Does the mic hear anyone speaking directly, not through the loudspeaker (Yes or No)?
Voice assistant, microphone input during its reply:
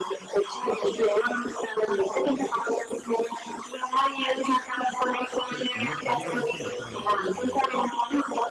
Yes